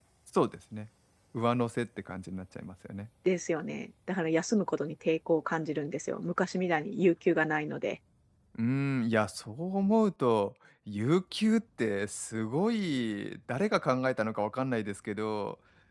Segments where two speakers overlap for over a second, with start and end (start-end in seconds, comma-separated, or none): none